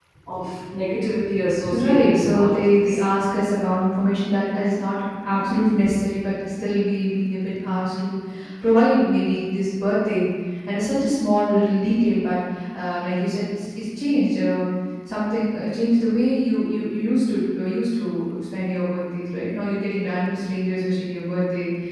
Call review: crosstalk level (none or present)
present